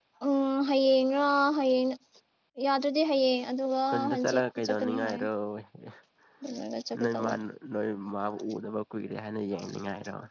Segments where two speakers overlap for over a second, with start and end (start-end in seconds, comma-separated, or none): 3.9-5.2